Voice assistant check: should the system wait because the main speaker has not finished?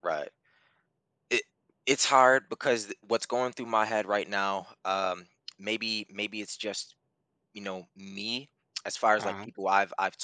Yes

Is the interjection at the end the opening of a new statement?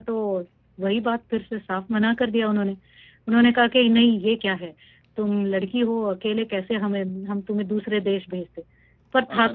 Yes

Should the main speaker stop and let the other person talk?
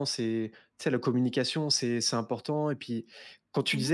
No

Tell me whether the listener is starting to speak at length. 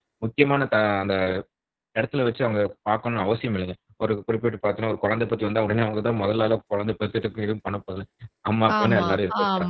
Yes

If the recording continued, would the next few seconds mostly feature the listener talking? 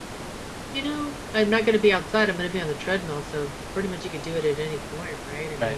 Yes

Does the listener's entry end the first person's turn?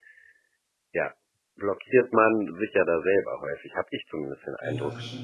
Yes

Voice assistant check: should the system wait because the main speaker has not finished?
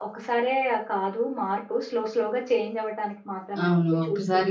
No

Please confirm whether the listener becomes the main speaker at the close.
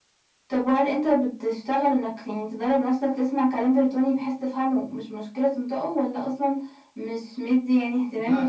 Yes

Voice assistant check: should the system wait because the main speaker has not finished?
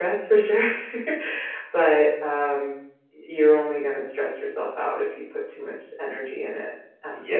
No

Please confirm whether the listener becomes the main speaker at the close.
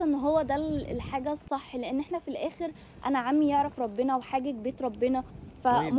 No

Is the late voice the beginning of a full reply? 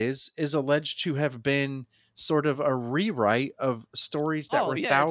Yes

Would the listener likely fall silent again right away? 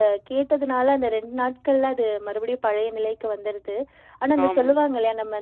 Yes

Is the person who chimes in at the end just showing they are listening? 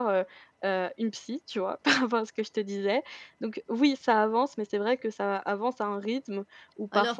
Yes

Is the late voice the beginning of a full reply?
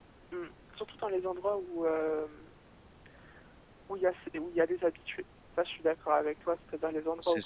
No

